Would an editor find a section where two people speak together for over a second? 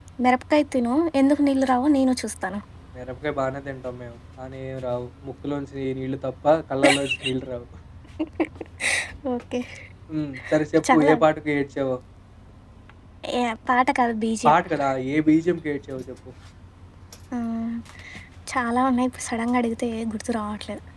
No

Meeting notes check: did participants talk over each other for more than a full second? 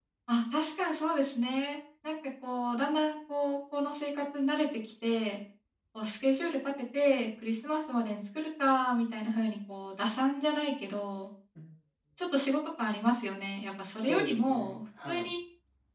Yes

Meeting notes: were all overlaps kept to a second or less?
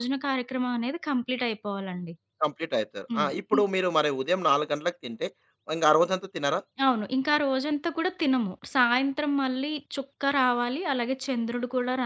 Yes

